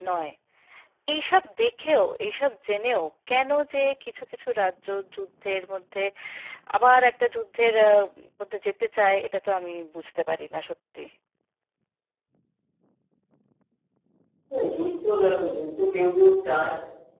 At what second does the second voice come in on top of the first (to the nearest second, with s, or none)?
none